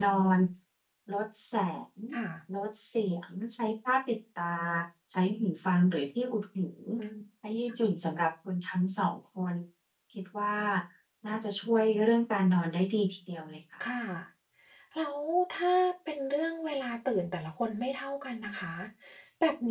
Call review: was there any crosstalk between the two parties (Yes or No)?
No